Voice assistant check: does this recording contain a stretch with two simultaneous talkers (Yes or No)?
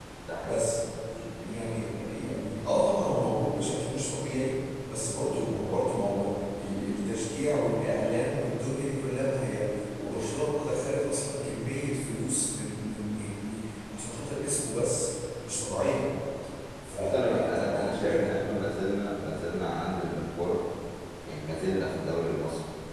Yes